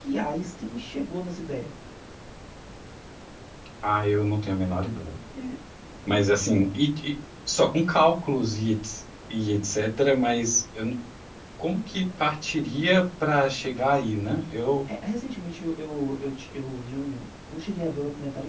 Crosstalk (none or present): none